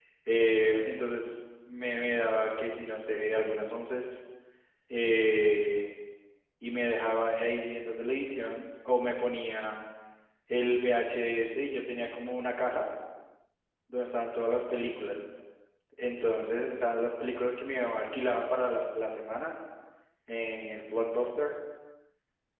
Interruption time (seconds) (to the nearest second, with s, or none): none